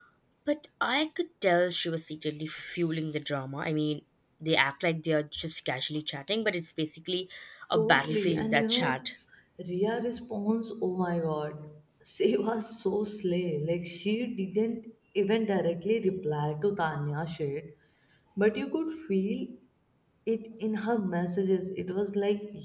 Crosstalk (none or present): present